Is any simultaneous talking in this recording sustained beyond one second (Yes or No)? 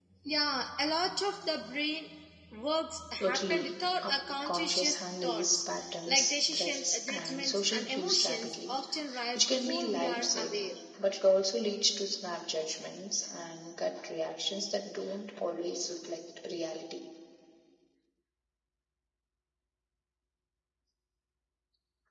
Yes